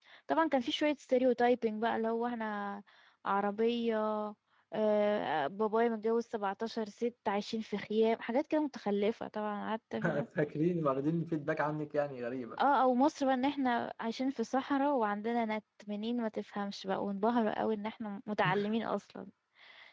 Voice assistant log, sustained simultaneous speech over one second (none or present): none